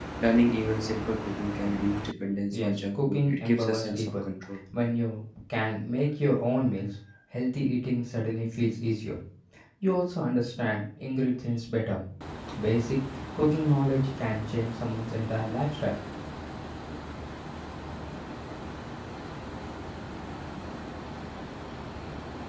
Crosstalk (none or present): present